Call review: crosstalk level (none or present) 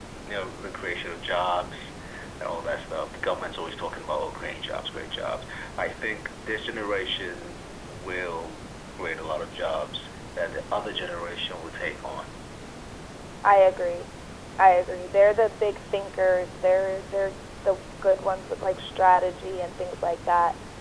none